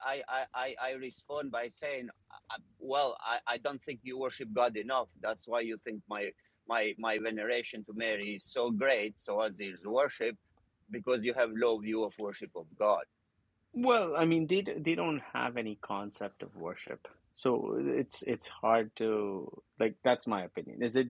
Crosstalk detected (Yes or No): No